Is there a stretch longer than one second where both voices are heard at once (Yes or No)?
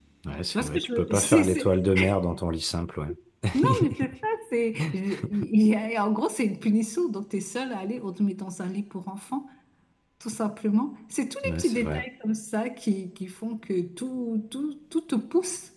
Yes